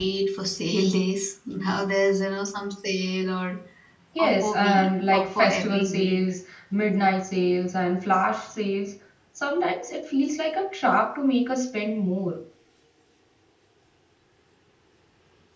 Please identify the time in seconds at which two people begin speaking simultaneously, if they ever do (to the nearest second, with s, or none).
4 s